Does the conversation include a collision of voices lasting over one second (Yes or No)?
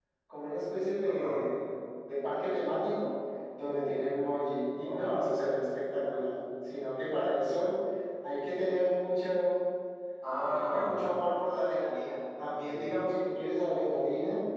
No